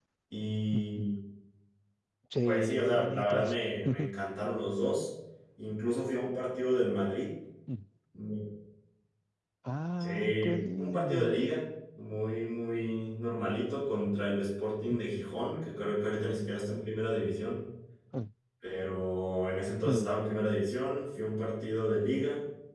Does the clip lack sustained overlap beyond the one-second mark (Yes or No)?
No